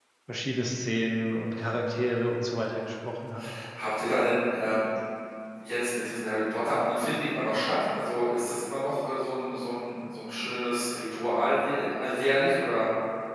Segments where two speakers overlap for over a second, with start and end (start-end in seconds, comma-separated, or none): none